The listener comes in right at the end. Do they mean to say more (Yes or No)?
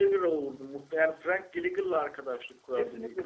Yes